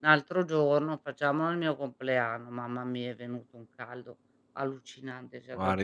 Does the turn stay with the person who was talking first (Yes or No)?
No